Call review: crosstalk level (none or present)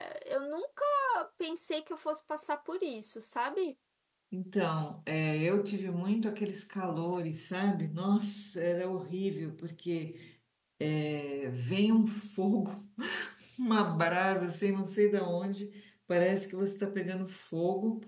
none